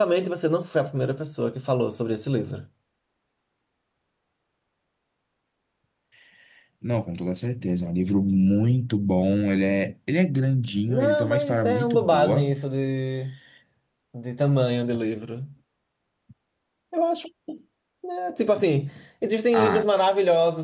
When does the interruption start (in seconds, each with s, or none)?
10.9 s